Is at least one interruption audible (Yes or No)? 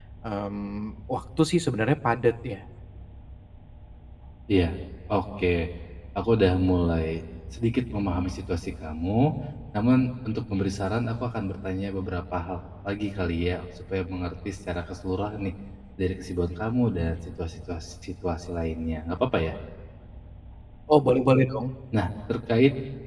No